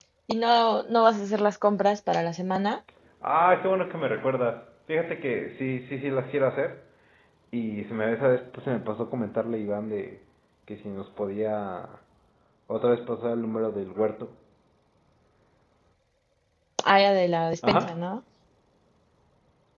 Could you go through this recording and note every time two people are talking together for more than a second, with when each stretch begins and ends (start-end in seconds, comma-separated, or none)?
none